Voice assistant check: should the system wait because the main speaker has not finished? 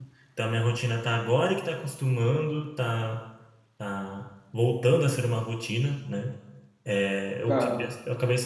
Yes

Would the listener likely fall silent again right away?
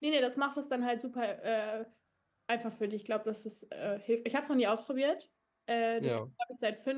Yes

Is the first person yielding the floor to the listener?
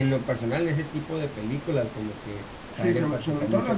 Yes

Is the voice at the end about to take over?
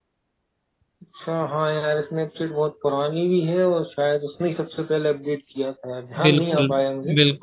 Yes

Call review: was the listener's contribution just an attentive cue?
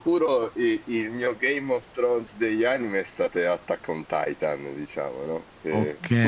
Yes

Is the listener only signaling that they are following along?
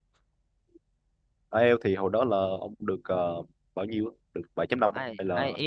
No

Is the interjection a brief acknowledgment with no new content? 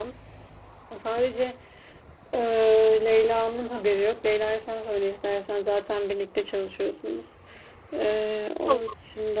Yes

